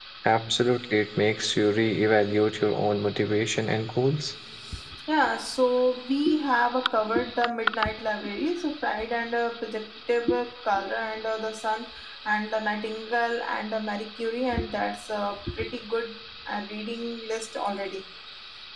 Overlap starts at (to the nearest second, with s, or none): none